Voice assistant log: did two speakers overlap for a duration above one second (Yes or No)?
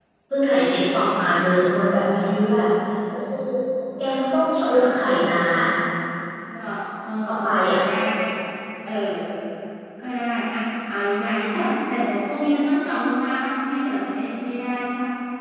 No